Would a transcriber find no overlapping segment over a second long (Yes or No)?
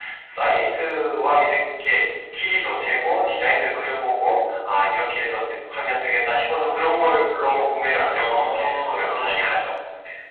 No